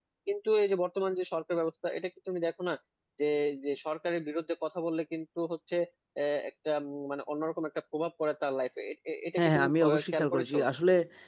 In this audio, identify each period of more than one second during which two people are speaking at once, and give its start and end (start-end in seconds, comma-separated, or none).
9.4-10.6